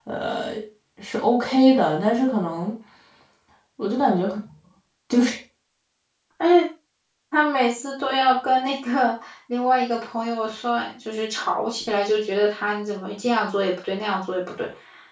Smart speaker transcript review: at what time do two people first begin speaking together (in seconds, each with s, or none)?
none